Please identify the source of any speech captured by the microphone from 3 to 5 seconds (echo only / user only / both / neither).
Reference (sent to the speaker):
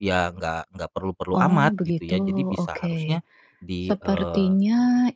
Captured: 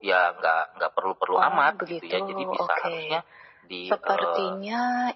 echo only